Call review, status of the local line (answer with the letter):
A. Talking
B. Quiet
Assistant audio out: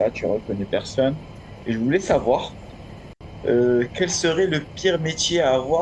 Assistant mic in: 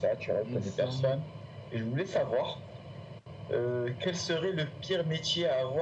A